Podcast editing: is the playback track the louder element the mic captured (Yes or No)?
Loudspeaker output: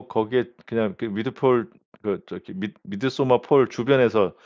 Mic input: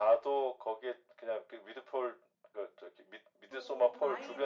Yes